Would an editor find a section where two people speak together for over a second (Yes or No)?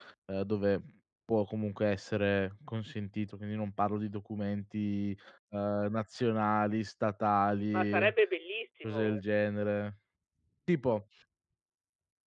No